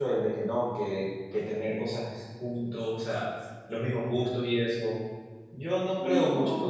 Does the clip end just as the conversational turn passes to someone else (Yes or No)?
No